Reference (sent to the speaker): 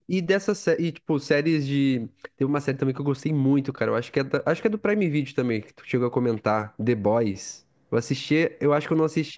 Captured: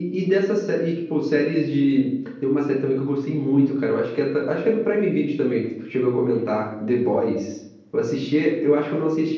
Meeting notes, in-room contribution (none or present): none